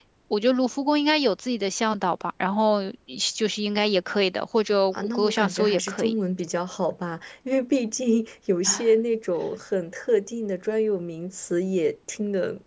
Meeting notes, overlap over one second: present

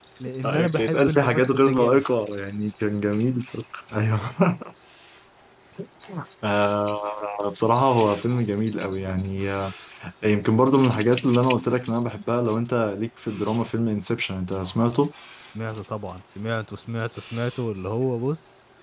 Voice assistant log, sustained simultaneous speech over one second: present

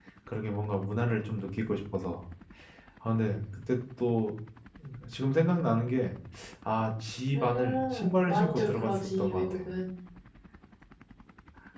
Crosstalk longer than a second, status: present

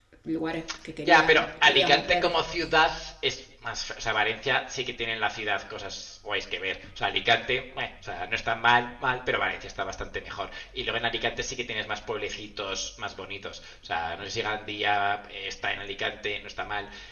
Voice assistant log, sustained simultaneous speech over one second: present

